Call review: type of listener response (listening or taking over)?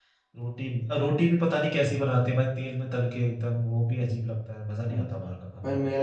taking over